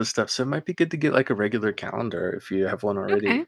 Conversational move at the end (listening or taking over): listening